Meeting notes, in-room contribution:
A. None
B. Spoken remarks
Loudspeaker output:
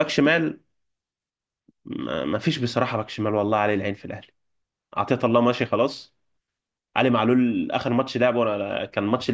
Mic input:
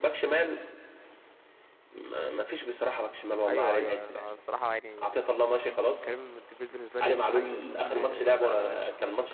B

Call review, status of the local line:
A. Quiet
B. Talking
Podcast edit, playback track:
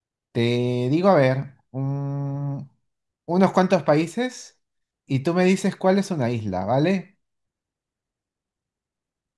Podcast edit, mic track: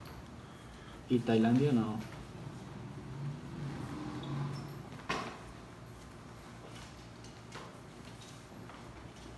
B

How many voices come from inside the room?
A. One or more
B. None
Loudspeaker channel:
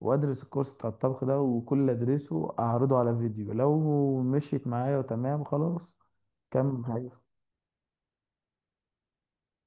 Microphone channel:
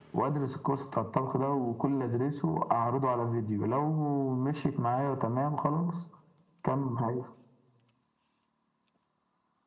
B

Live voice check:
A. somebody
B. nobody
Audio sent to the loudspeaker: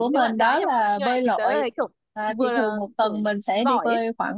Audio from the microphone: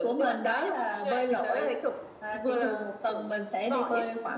B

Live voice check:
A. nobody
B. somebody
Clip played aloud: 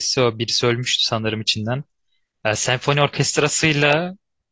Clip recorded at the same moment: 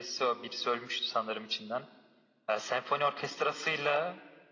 A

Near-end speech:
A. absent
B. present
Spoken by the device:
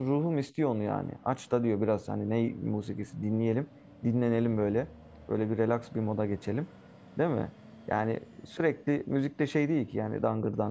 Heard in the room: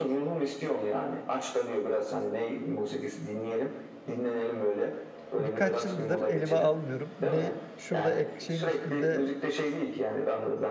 B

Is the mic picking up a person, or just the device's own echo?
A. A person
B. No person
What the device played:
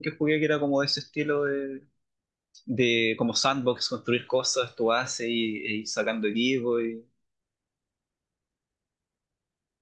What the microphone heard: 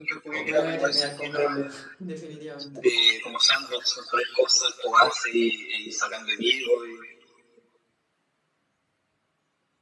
A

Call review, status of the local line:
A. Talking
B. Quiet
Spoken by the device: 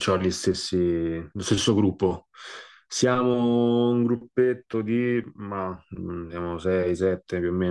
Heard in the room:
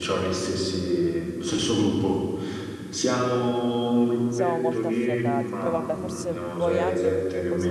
A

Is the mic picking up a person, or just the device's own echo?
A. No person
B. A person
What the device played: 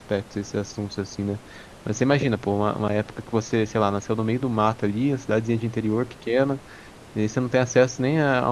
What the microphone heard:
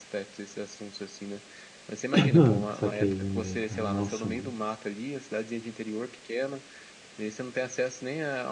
B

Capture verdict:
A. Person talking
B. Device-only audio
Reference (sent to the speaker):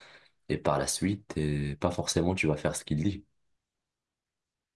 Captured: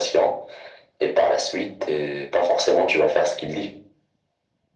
B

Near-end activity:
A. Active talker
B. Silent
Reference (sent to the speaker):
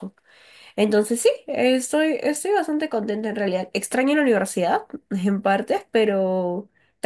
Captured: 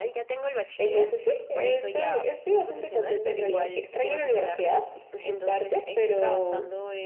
A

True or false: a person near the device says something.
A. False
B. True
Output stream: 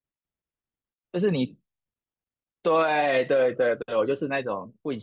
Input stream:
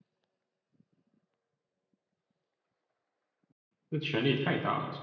B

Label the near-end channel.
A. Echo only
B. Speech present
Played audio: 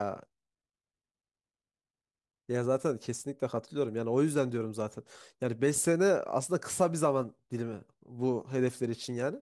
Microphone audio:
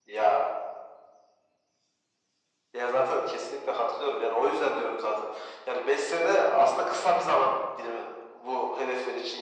A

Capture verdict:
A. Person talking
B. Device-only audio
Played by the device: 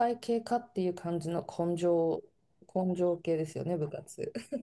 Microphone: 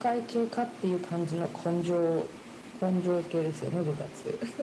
B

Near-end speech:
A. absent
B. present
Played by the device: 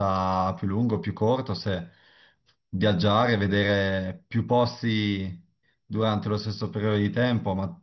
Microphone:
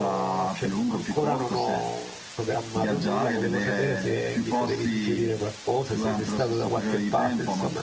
B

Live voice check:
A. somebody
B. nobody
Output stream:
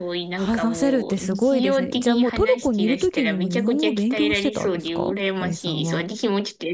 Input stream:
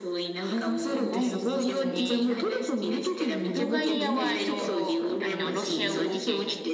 A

